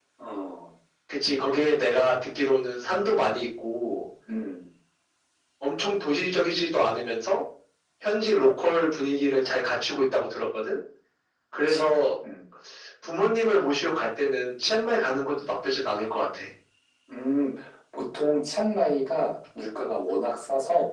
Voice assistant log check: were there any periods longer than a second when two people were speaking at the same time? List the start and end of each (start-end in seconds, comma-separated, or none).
none